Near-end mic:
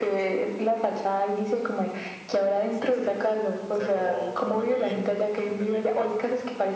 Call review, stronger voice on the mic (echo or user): echo